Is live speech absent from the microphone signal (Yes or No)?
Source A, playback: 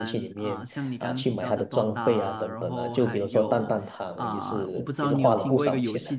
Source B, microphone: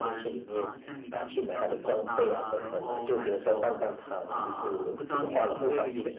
No